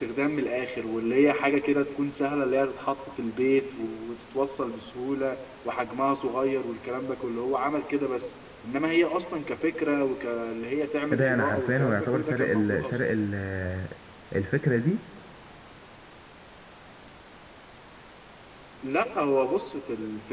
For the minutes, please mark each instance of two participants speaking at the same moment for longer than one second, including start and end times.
11.1-12.9

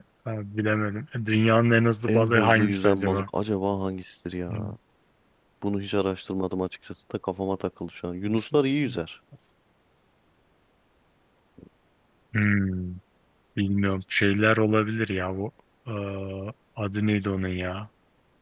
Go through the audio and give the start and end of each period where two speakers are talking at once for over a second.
2.1-3.3

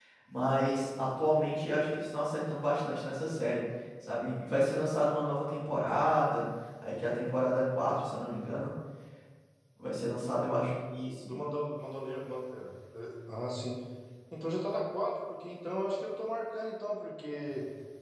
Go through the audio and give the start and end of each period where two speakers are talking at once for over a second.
none

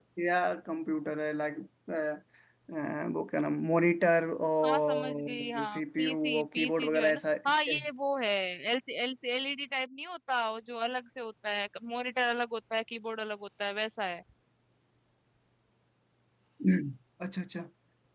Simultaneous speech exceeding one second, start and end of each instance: 4.7-7.2

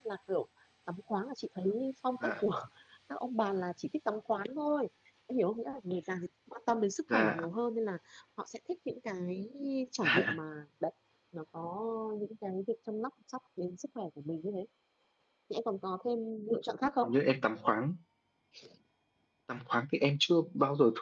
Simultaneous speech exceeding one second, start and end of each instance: none

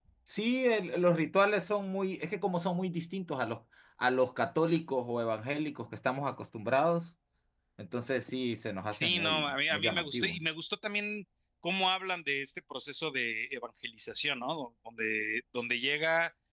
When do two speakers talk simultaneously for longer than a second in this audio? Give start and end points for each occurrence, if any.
8.9-10.4

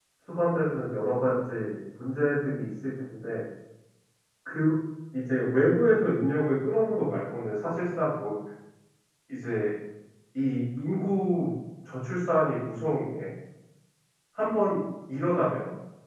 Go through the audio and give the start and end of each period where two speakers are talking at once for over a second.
none

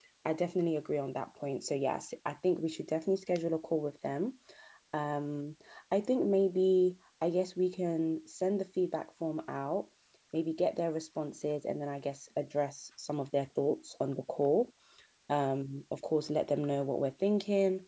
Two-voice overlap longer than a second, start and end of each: none

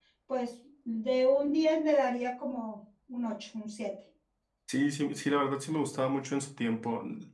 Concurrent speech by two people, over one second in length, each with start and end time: none

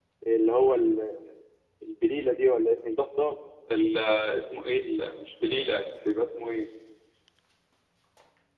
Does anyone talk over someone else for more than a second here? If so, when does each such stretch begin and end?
none

